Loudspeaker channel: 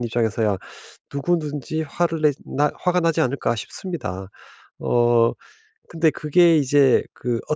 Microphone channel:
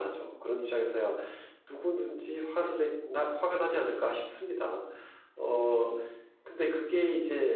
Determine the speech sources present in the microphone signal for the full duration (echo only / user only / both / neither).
echo only